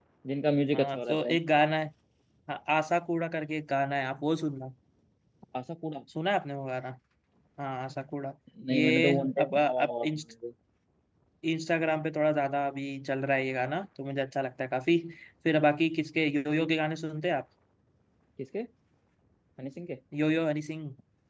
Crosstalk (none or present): present